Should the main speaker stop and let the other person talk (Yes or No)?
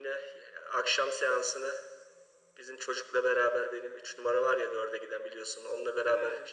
No